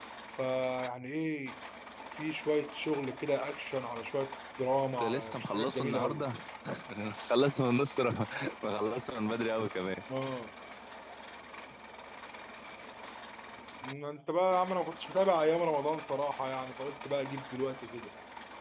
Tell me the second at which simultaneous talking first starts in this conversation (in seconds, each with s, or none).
5.0 s